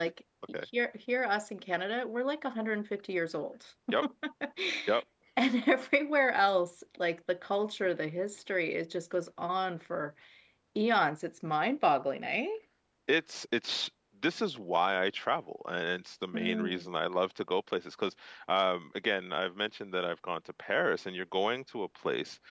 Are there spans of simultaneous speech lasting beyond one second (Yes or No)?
No